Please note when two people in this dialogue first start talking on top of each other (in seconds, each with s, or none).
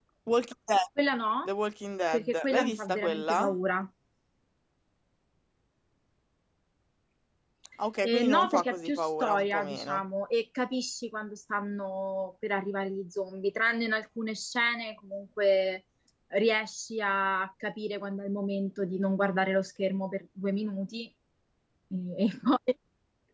2.1 s